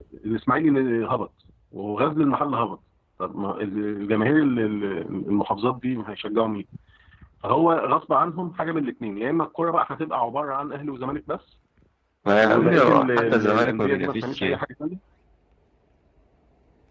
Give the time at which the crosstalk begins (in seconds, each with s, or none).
12.4 s